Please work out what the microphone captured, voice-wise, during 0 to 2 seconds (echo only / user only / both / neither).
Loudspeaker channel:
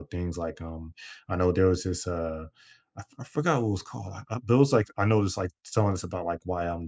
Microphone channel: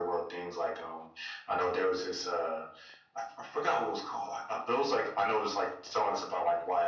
echo only